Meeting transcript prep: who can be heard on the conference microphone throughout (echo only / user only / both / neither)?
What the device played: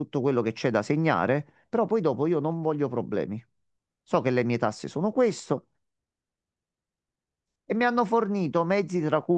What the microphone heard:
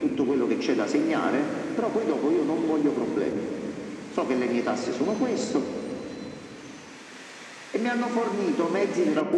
echo only